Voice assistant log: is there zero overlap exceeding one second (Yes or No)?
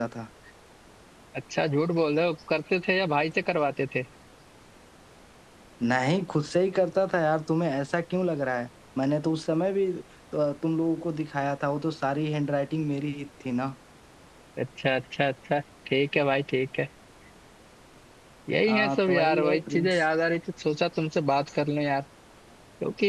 No